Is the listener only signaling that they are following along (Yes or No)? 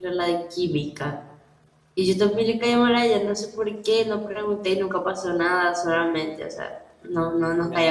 No